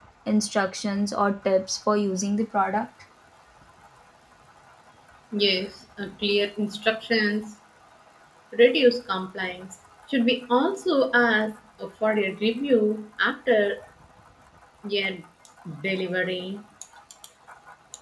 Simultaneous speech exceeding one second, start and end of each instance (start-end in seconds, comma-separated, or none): none